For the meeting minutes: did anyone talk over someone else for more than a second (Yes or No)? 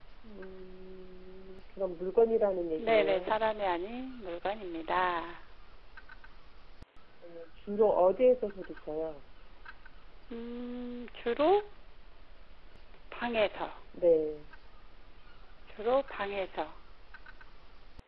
No